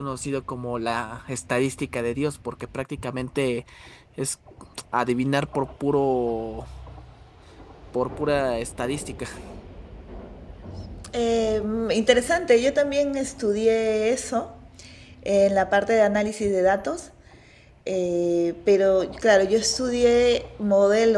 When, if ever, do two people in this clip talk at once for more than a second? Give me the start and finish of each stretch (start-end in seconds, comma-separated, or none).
none